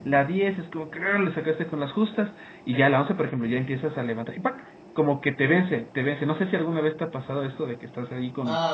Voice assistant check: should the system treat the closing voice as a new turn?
Yes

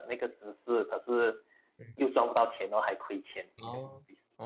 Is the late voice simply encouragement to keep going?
No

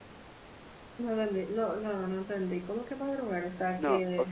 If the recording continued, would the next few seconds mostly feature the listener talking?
Yes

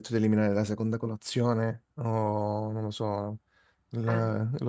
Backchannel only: Yes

